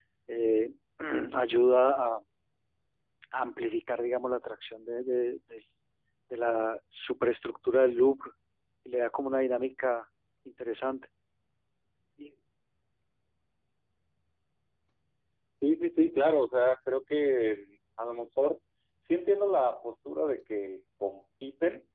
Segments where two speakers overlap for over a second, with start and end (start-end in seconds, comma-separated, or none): none